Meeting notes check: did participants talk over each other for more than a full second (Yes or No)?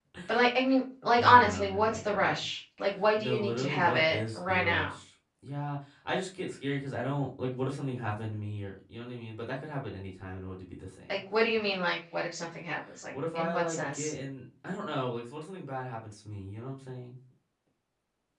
Yes